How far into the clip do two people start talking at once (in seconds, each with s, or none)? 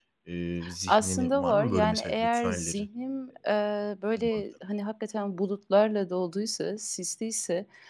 0.9 s